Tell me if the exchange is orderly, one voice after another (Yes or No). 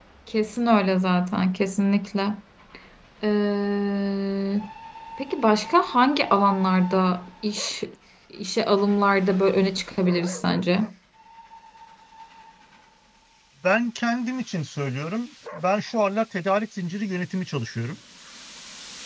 Yes